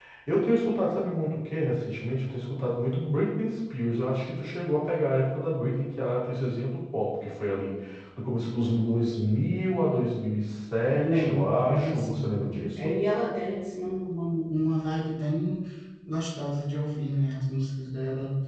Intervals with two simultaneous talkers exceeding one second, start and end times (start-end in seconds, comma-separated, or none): 11.0-12.3